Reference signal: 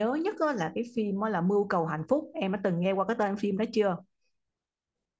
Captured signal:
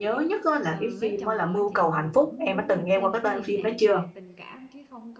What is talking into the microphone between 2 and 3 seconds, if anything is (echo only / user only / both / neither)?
both